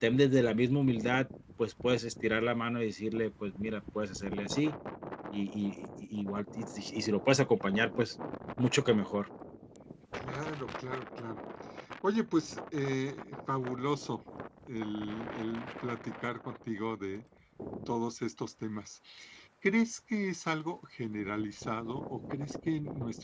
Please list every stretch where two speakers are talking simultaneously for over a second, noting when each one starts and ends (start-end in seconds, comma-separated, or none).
none